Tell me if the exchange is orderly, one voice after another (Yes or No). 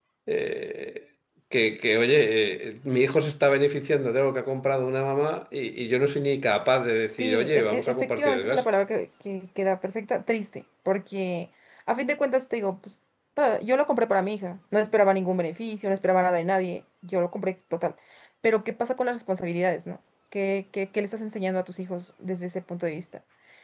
No